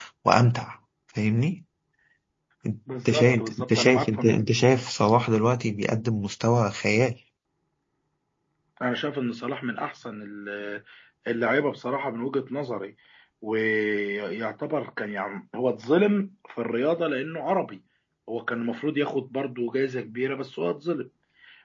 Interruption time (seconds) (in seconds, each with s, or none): 3.0 s